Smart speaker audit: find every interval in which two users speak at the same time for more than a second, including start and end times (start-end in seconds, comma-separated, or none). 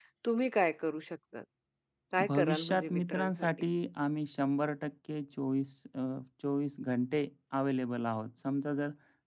2.3-3.5